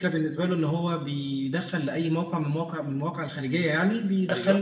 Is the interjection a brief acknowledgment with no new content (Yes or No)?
Yes